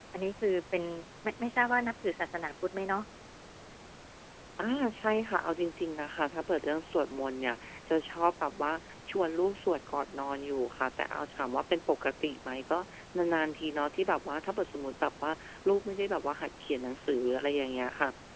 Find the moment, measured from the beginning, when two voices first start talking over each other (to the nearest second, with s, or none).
none